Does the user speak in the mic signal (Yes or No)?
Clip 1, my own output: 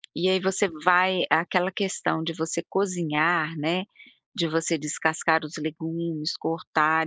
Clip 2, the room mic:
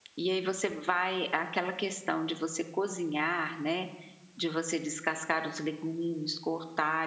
No